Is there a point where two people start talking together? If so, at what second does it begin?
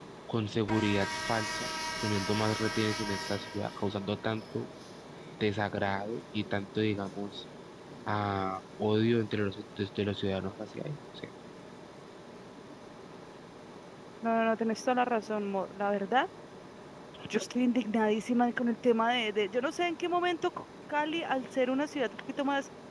none

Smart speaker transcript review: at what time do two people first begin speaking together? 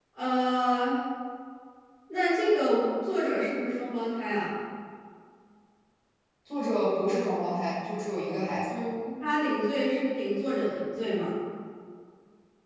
none

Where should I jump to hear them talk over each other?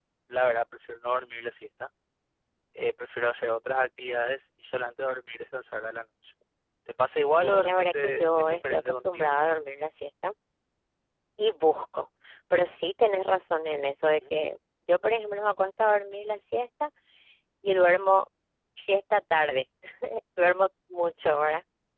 7.4 s

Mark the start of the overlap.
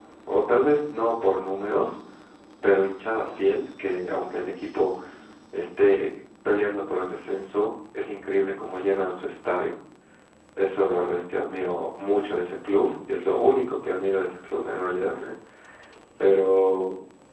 none

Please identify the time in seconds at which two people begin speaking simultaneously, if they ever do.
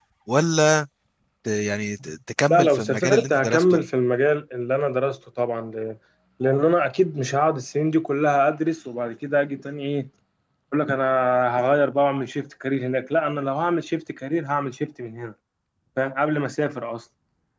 2.5 s

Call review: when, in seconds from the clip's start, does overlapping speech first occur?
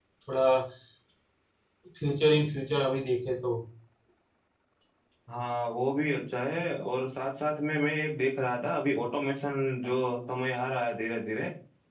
none

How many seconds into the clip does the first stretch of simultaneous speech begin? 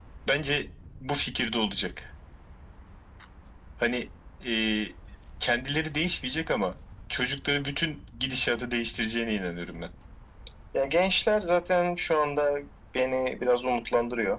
none

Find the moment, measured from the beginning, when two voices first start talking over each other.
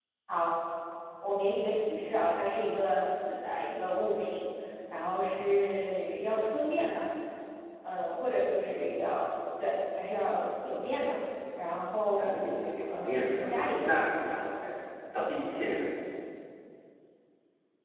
12.2 s

